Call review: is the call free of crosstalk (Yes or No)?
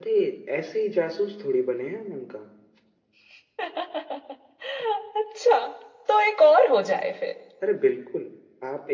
Yes